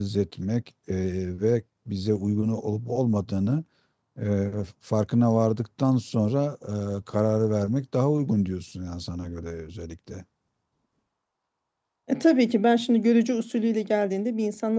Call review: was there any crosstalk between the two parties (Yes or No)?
No